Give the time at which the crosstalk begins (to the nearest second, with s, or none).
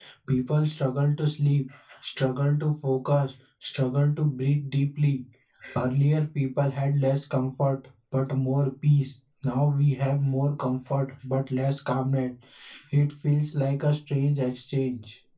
none